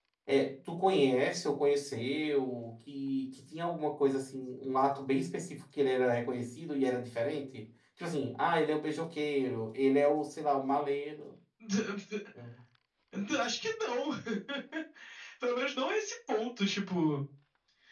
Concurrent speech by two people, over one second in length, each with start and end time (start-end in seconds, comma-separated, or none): none